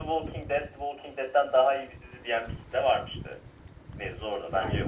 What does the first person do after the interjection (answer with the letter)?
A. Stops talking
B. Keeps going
A